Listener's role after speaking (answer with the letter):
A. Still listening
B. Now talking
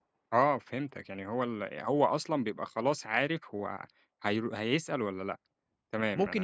B